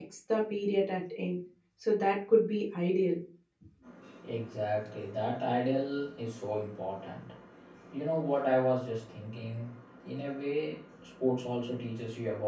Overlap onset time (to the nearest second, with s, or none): none